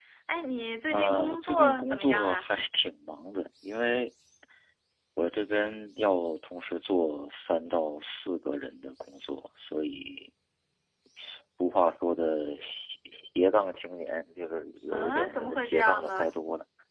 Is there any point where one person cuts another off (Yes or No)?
Yes